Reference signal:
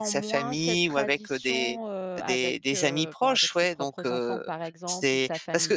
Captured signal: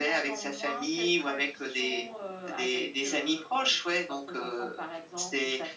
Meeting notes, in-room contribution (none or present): none